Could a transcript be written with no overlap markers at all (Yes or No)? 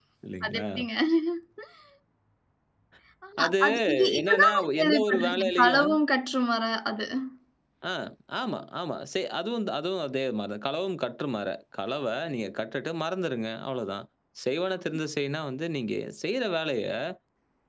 No